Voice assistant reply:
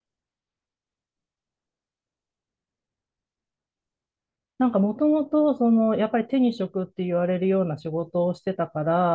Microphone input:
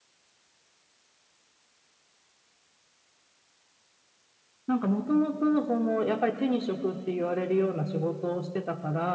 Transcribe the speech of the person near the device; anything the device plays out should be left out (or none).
none